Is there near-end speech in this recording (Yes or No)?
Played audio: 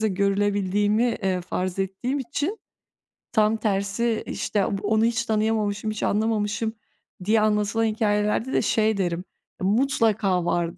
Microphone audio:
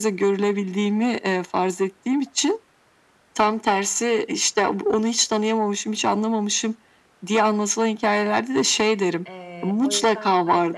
Yes